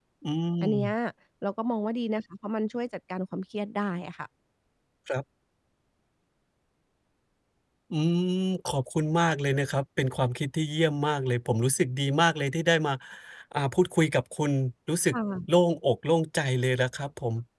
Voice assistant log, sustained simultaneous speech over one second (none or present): none